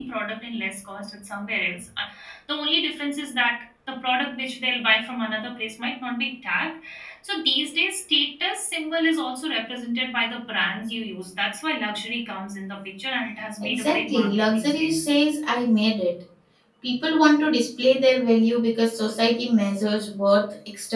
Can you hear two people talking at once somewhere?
Yes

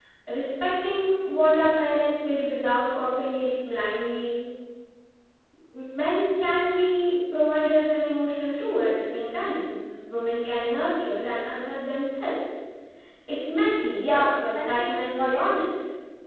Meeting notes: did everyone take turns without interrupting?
No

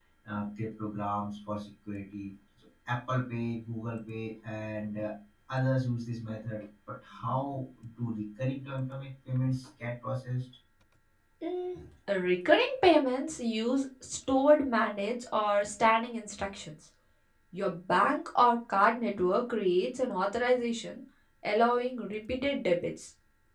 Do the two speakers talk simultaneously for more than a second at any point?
No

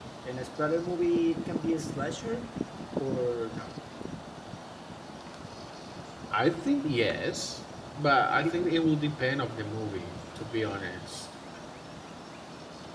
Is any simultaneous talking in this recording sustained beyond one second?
No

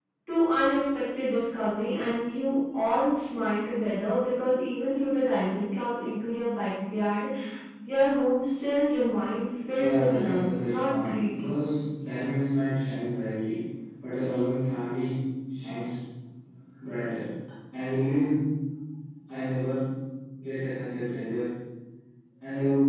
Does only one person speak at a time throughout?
No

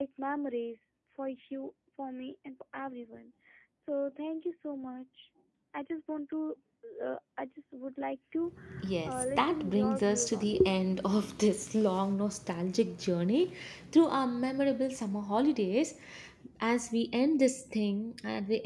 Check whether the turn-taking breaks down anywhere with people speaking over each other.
Yes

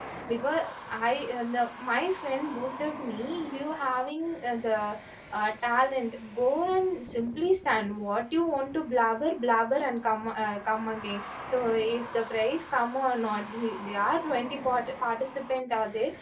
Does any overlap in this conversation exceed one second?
No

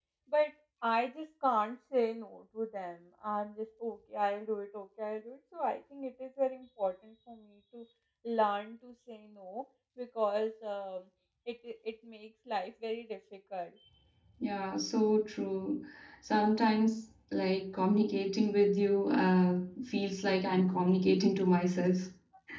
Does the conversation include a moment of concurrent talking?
No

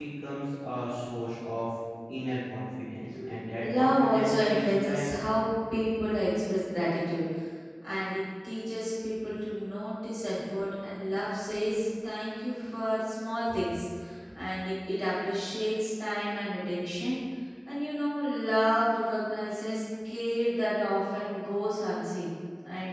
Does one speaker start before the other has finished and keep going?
Yes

